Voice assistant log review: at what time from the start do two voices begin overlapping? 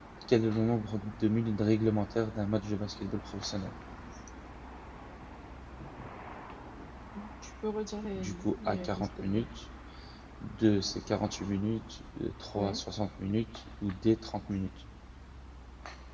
8.2 s

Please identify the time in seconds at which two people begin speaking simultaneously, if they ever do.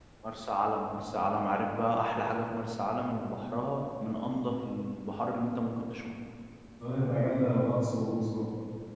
none

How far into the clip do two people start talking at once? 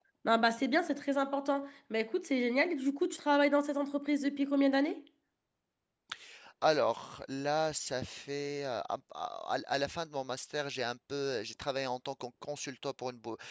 none

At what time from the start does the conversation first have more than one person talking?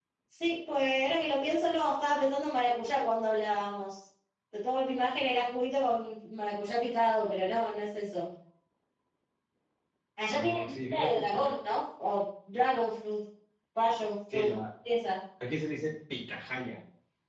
10.3 s

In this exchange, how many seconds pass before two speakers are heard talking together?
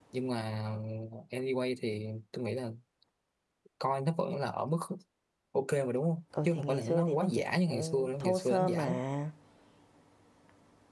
6.3 s

